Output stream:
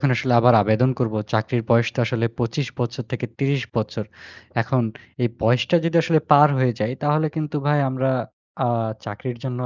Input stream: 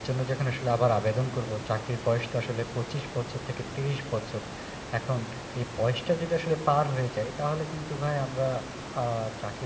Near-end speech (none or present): none